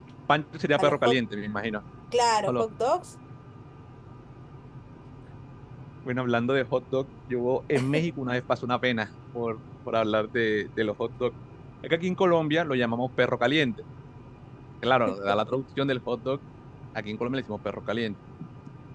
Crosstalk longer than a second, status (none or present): none